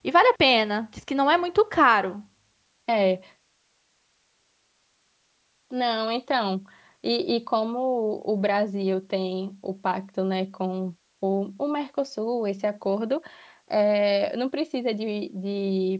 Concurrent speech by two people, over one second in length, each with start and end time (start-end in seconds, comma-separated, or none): none